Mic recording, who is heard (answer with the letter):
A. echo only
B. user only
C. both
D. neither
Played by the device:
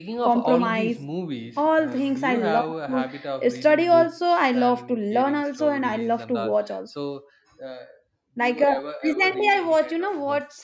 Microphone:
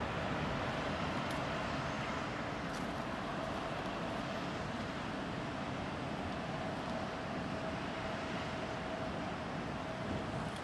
D